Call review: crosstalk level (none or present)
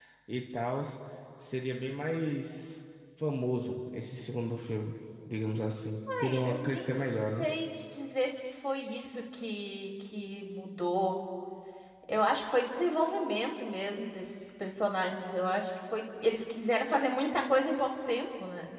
present